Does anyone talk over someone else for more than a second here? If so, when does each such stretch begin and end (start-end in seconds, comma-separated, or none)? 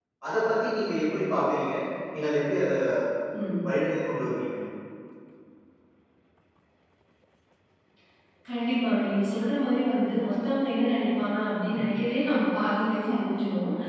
none